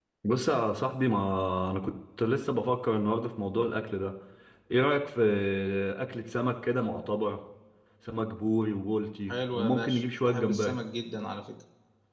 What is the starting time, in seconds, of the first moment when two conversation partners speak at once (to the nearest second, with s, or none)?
9 s